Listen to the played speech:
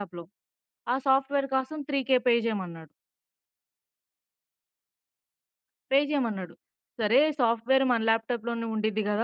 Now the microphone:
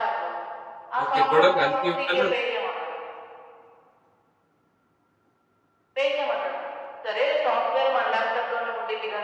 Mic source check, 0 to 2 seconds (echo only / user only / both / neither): both